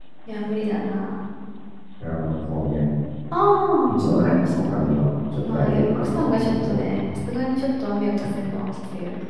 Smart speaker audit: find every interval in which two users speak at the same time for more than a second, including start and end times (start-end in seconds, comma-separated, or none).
5.5-6.8